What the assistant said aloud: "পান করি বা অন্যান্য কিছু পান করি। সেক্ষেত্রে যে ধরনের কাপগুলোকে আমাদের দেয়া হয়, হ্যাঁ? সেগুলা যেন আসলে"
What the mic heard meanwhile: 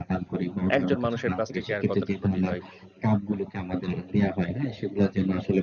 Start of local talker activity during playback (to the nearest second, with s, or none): 1 s